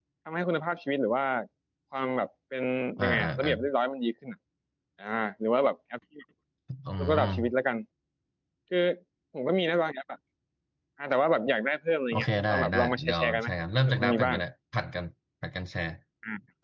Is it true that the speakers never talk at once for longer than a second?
No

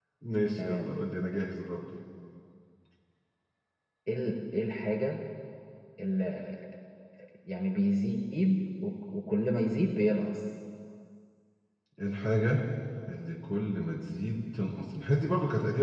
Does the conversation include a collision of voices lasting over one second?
No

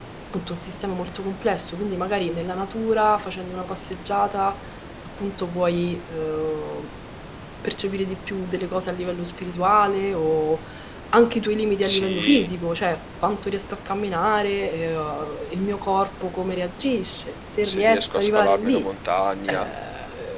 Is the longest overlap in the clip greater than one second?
Yes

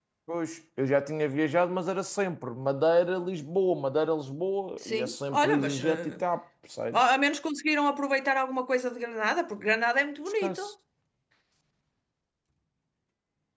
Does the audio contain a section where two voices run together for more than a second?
Yes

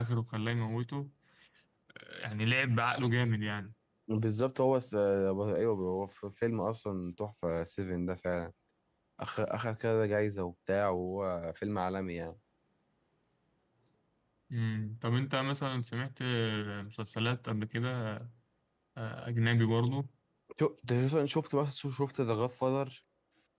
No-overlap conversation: Yes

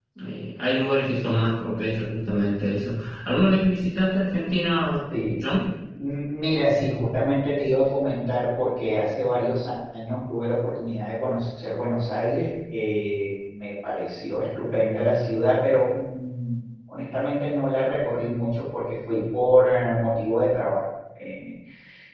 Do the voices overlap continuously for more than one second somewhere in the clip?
No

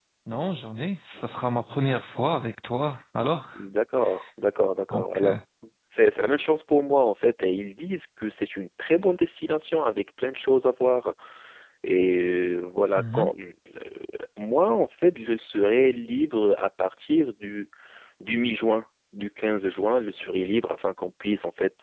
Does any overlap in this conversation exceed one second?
No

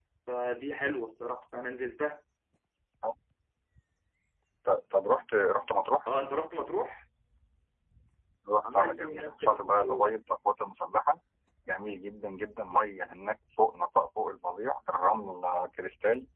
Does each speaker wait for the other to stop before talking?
No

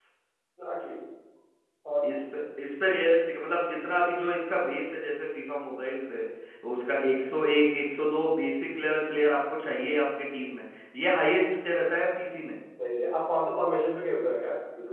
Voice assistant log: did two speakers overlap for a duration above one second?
No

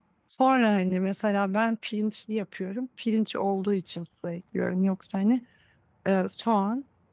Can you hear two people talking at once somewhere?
No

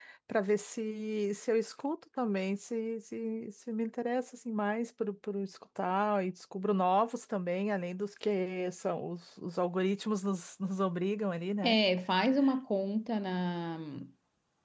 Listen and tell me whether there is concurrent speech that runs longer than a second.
No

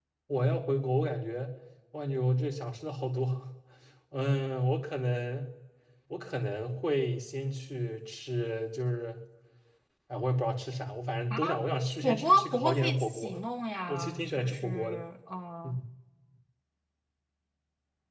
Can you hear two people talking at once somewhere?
Yes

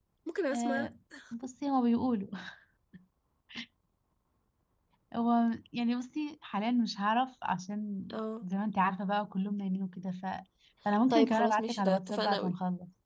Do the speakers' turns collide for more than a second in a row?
Yes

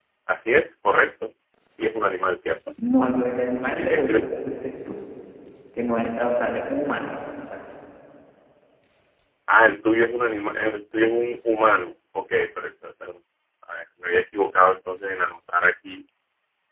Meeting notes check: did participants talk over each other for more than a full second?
No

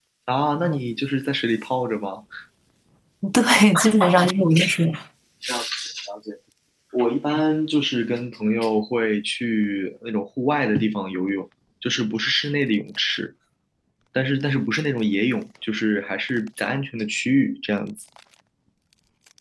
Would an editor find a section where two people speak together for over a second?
No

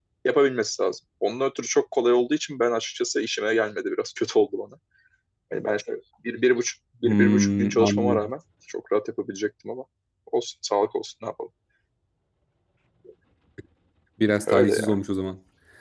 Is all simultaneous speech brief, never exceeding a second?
No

